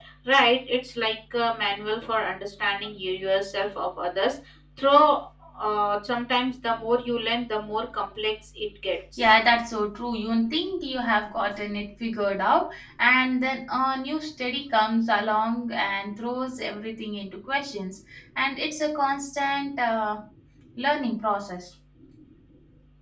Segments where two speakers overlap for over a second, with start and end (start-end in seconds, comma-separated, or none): none